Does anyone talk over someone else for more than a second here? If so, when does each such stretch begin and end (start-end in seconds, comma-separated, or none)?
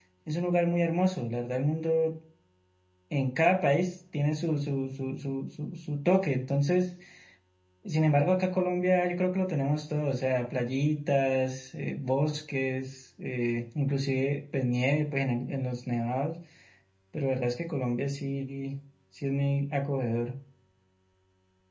none